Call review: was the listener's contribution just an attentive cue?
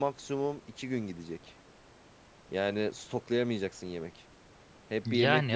Yes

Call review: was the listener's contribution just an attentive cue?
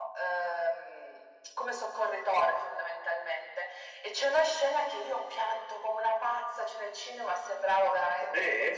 Yes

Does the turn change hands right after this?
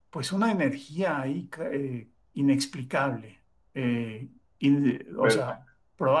No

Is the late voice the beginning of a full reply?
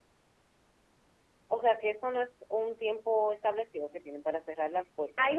Yes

